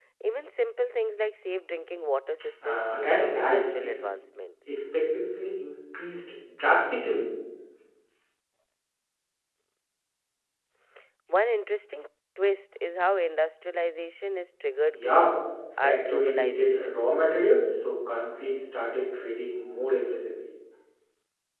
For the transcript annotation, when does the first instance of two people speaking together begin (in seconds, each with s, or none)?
2.6 s